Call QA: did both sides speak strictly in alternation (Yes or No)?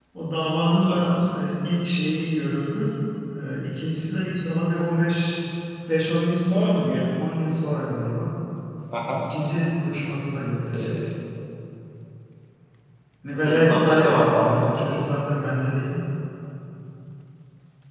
No